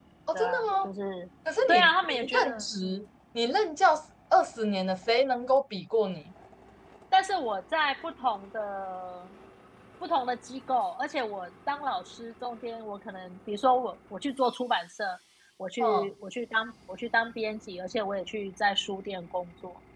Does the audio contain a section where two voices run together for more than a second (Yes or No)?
Yes